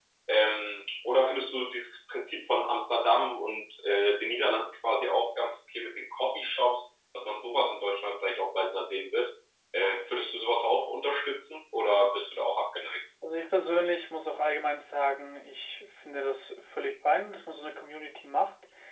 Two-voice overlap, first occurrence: none

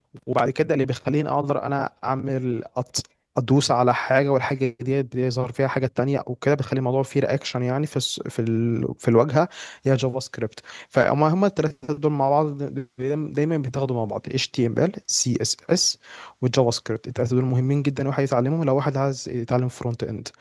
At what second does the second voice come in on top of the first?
none

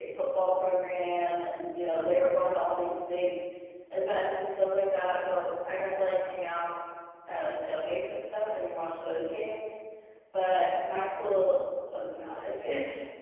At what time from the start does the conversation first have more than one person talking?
none

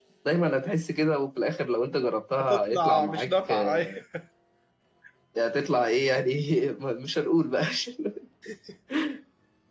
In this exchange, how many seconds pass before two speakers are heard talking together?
2.4 s

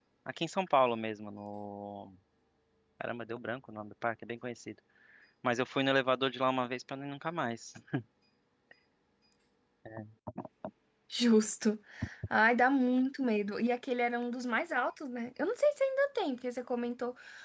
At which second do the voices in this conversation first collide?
none

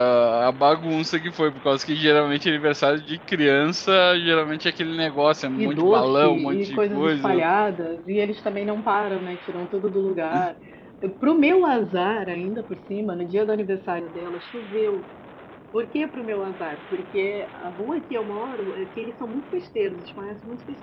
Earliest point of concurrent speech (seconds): 5.6 s

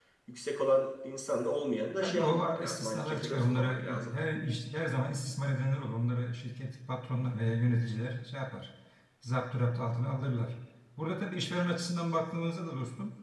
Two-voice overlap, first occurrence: 2.0 s

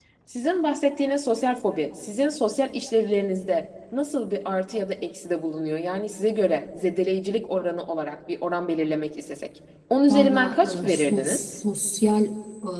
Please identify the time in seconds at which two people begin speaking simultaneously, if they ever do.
10.1 s

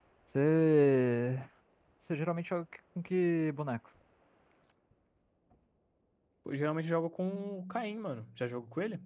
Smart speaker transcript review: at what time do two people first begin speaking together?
none

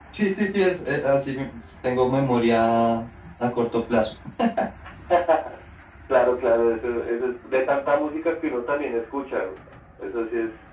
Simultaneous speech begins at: none

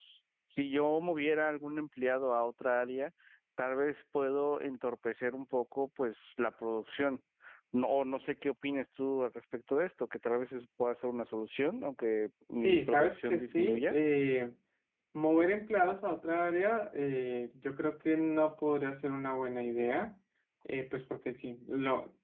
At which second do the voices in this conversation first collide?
12.5 s

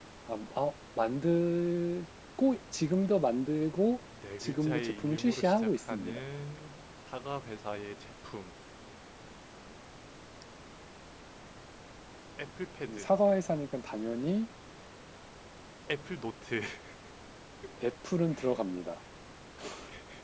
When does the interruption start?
4.4 s

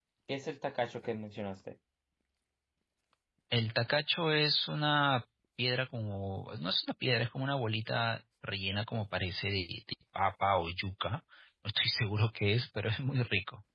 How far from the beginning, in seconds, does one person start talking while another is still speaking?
none

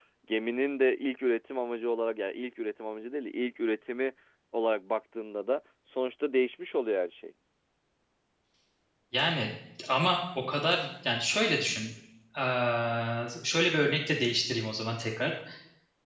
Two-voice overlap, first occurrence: none

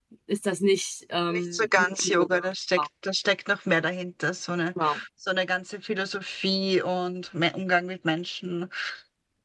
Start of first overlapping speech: 1.3 s

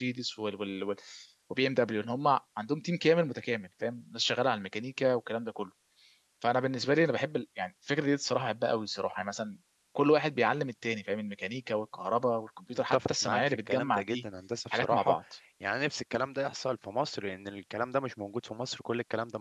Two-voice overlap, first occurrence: 12.7 s

